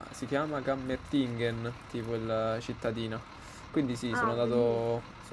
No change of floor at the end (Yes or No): Yes